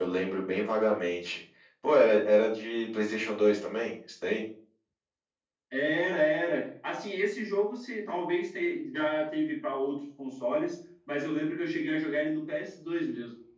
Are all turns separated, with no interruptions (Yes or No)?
Yes